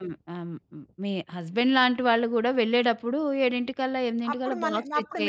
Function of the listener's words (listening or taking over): taking over